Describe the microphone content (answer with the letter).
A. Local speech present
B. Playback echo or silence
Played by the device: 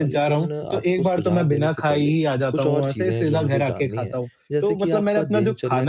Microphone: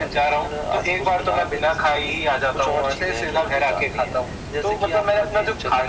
B